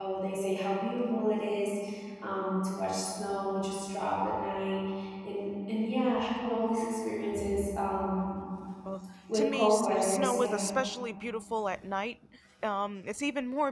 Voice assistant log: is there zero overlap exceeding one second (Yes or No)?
No